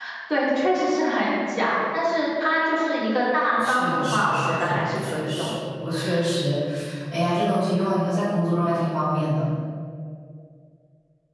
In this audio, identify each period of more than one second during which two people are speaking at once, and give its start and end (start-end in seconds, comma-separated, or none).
3.6-5.5